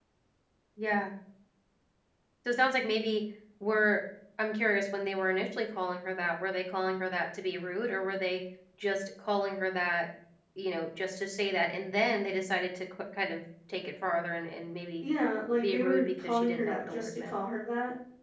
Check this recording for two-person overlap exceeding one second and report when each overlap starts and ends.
15.6-17.4

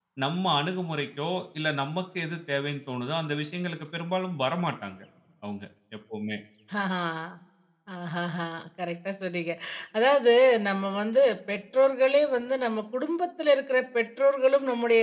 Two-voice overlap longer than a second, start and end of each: none

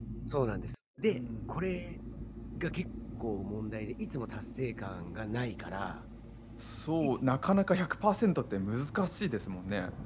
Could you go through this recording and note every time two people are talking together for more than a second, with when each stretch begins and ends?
none

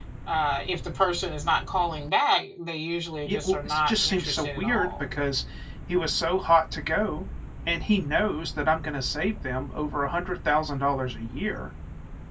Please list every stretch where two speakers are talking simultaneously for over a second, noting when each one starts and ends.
3.2-5.0

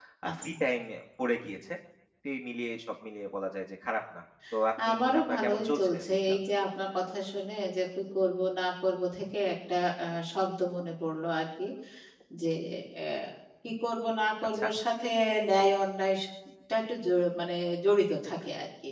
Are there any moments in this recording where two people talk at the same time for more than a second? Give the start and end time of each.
4.9-6.4

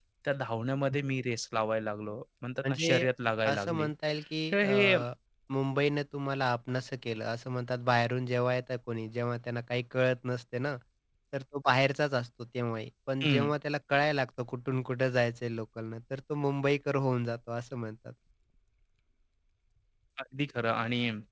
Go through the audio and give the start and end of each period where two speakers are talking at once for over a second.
none

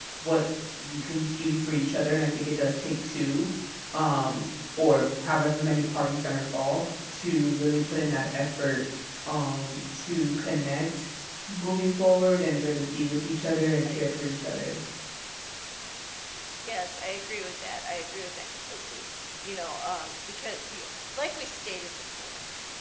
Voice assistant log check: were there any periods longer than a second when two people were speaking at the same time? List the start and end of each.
none

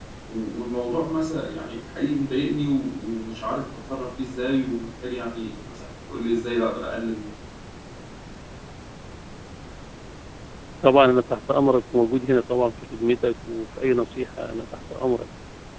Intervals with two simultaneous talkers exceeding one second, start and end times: none

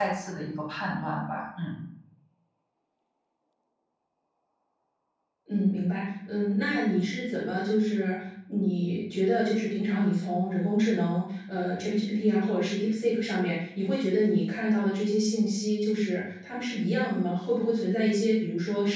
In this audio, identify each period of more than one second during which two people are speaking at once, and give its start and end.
none

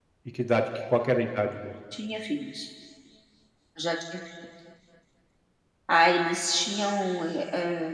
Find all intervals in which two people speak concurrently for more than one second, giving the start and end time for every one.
none

